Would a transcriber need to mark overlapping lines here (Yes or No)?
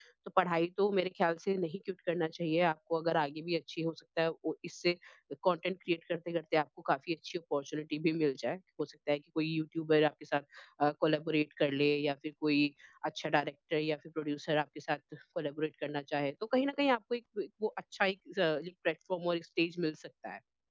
No